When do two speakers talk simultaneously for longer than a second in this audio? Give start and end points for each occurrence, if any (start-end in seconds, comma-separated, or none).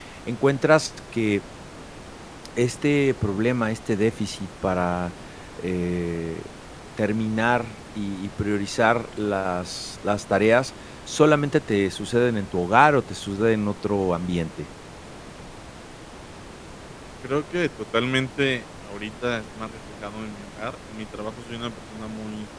none